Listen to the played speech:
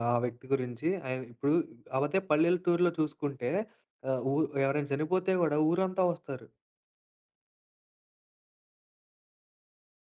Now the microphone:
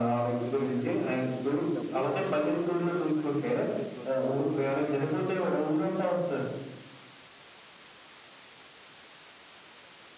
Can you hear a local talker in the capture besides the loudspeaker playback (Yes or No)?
Yes